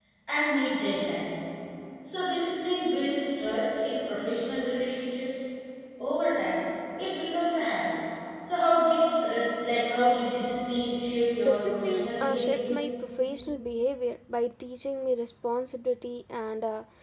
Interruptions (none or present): present